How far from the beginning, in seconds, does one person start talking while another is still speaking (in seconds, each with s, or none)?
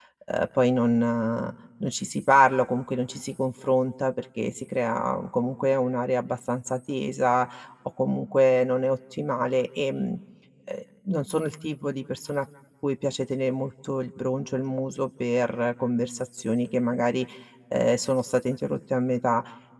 none